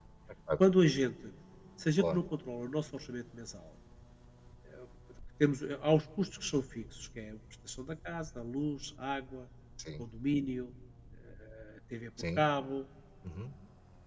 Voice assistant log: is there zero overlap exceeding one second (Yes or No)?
Yes